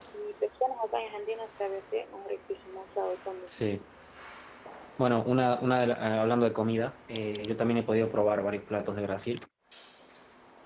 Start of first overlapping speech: none

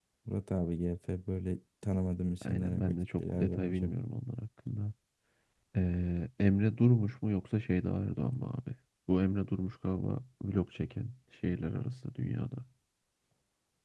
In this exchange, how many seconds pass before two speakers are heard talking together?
2 s

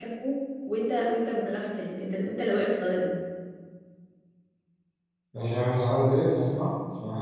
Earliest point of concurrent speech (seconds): none

